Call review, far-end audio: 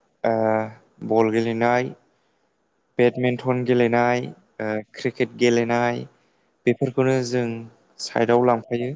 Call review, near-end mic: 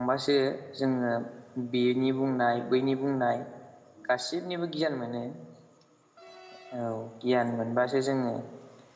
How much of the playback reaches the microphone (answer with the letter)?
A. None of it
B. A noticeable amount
A